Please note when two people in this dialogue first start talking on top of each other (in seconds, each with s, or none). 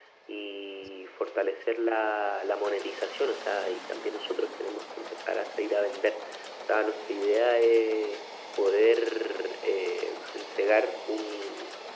none